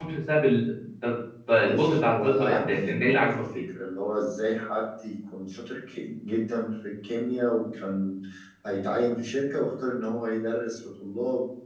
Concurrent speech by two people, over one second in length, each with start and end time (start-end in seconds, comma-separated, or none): 1.6-3.6